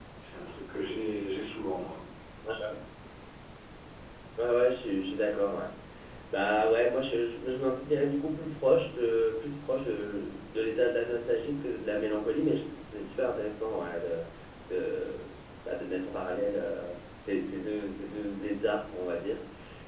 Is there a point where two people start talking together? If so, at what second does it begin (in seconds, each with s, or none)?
none